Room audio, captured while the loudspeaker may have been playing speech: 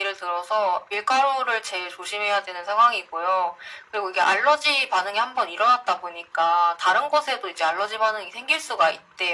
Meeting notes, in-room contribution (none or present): none